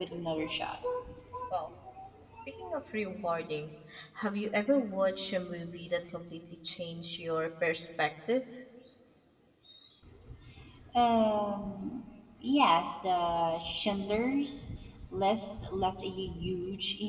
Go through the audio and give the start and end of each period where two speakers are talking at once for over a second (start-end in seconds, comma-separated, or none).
none